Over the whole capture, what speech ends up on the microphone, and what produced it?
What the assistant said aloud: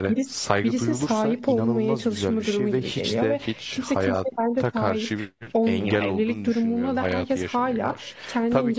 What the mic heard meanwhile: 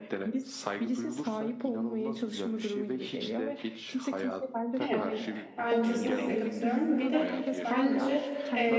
both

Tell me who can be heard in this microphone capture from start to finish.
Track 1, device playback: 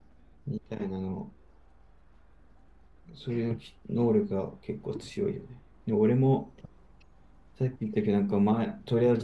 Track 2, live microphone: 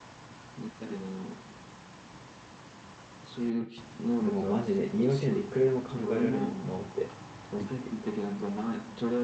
both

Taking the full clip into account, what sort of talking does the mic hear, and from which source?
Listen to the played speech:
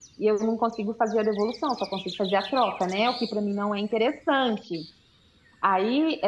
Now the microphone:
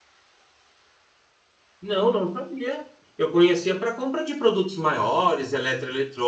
user only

